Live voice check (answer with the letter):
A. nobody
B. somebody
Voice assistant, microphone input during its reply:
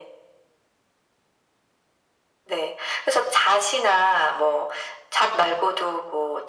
A